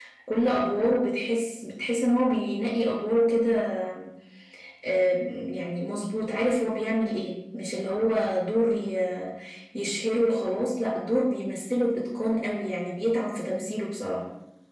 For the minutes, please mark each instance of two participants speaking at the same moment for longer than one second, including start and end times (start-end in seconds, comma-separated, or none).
none